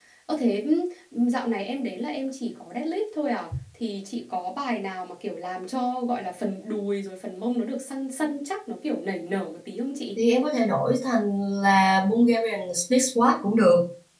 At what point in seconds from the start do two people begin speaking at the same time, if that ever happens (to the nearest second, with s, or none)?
none